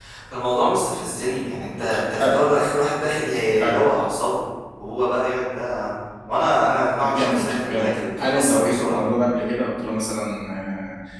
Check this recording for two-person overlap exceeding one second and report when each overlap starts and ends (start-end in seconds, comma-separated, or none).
7.1-9.0